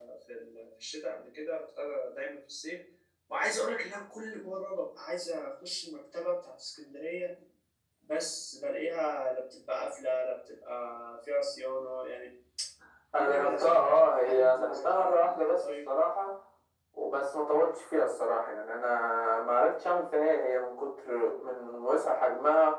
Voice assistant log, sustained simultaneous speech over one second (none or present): present